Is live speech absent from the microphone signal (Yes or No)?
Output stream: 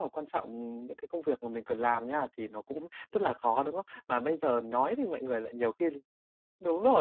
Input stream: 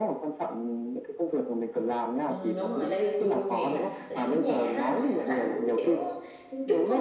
No